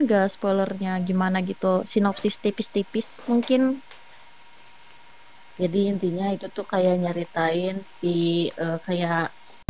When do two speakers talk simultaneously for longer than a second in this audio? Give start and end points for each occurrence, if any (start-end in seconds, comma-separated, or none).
none